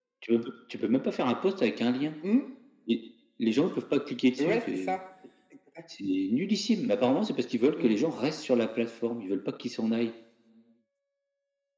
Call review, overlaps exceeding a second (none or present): none